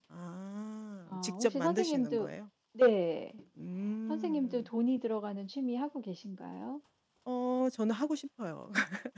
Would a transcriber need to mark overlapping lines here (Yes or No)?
Yes